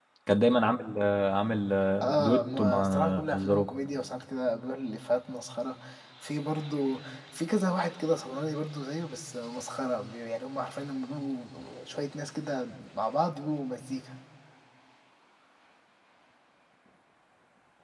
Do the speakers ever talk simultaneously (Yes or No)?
Yes